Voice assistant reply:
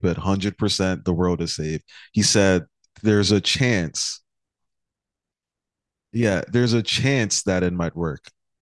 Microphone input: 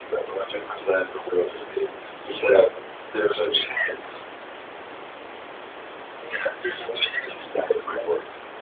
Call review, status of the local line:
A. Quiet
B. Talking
A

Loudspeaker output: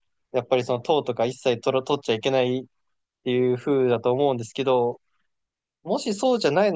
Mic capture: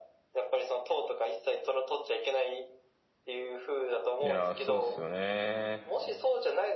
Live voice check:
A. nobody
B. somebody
B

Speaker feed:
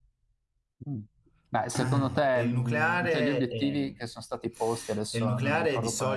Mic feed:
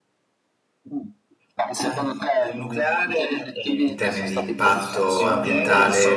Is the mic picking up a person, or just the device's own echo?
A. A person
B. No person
A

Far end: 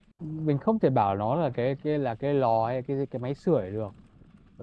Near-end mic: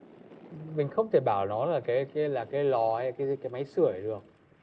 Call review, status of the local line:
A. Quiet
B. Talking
A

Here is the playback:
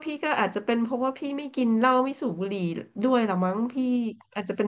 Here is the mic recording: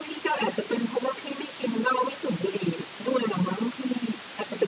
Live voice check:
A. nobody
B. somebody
A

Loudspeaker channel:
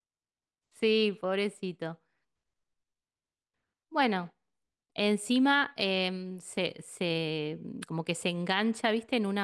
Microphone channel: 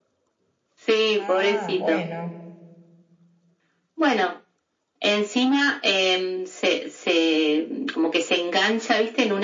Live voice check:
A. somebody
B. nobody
A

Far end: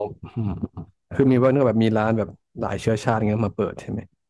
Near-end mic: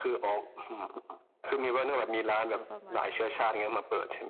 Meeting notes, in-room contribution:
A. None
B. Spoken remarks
B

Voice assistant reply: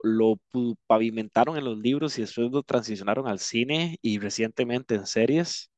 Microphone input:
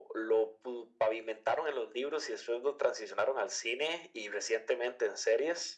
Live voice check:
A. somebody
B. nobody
B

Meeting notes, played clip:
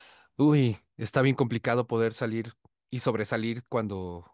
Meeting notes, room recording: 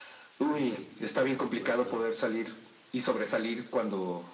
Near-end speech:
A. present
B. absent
A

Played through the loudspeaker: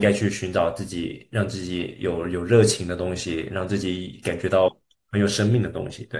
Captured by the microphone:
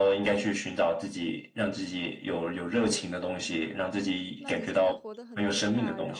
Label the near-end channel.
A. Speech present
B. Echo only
A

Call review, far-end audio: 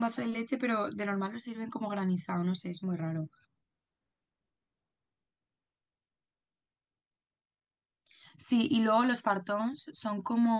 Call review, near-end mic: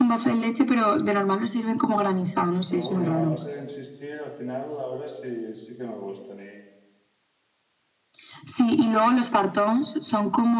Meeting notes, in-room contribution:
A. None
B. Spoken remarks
B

